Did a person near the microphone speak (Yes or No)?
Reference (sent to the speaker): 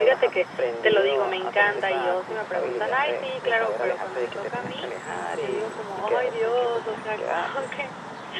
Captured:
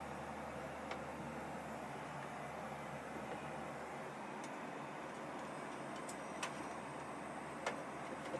No